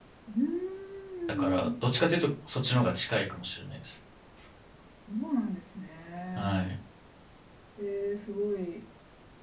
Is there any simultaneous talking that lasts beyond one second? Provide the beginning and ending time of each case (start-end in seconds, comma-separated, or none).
none